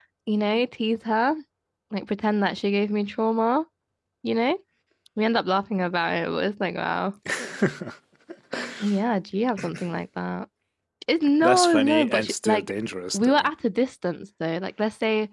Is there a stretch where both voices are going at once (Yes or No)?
Yes